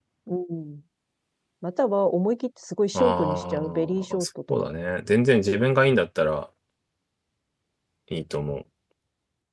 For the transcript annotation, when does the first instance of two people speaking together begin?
3 s

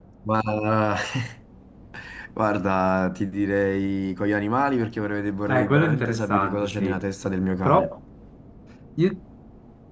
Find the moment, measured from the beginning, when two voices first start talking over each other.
5 s

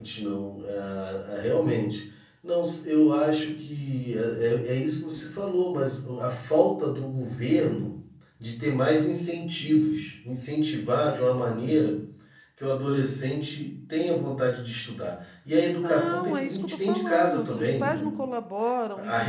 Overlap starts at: 16 s

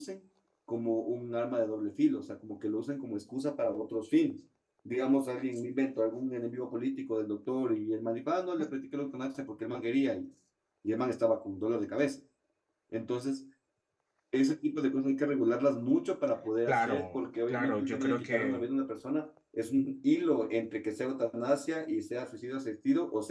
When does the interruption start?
17 s

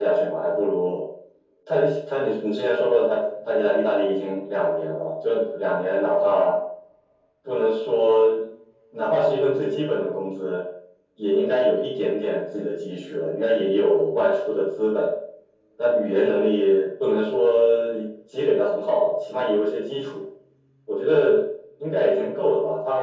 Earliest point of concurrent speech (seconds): none

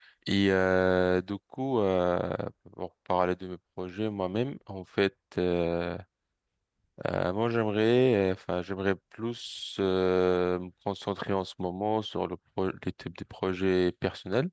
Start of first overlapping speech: none

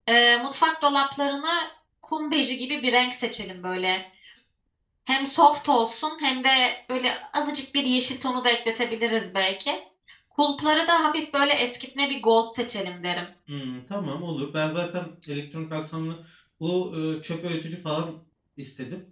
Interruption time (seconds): none

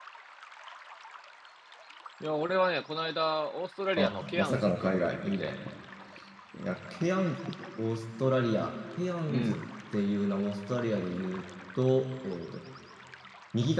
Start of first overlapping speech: 4 s

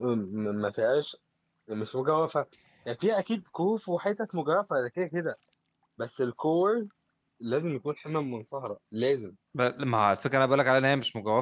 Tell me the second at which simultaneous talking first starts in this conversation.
none

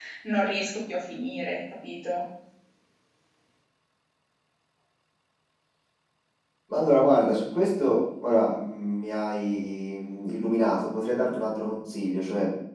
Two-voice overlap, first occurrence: none

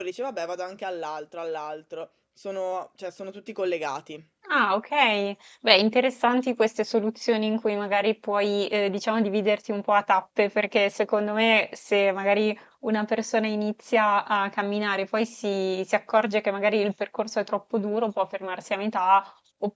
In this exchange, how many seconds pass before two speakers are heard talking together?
none

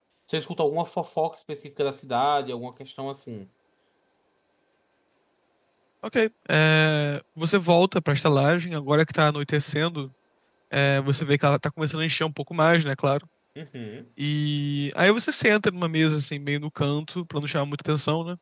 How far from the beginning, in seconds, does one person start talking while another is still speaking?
none

